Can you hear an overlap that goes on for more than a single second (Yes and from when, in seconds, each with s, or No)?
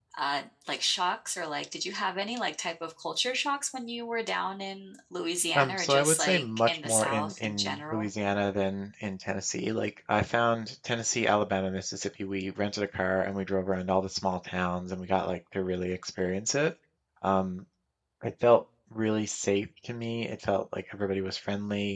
Yes, from 5.5 s